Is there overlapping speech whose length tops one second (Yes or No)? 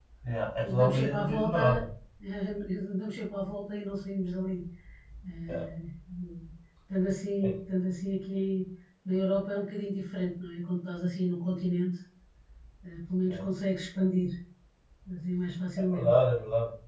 Yes